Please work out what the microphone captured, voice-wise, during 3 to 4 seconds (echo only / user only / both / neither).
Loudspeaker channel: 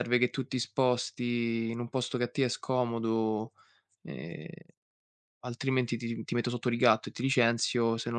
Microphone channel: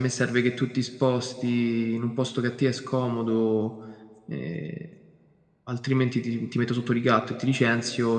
echo only